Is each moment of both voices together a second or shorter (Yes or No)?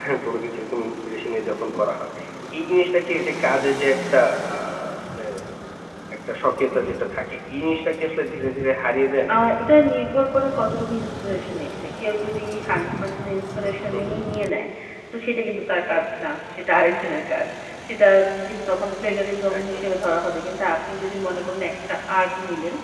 Yes